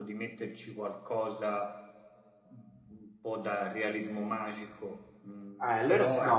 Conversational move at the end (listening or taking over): taking over